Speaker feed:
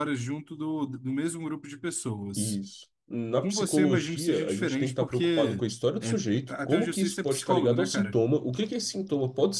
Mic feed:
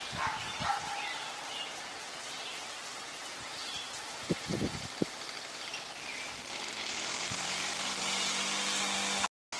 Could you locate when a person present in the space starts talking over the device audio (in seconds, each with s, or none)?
none